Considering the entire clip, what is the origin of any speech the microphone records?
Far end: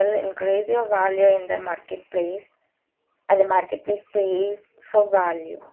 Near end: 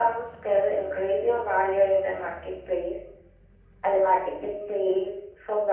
echo only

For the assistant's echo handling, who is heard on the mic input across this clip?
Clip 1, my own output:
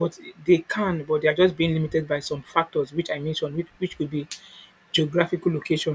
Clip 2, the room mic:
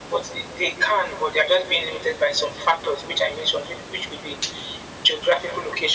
echo only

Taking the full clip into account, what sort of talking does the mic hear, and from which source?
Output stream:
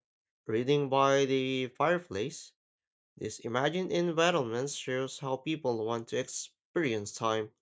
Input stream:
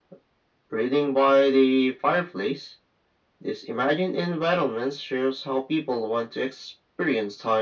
echo only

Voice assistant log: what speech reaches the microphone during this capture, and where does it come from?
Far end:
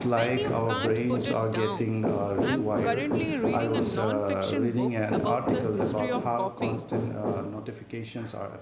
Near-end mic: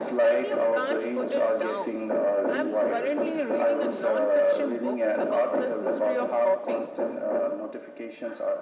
echo only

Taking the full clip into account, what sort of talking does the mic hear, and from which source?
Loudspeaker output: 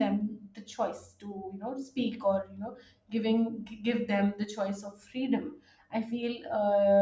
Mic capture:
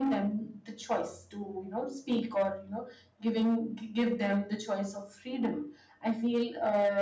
echo only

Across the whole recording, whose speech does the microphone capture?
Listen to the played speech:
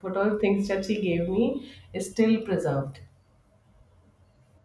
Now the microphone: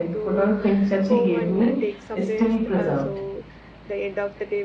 both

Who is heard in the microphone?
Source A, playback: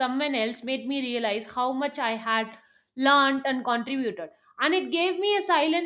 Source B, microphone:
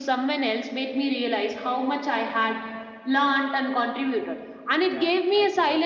both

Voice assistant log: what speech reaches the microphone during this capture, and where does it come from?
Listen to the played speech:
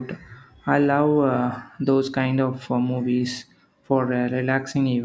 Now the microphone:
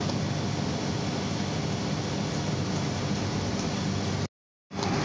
neither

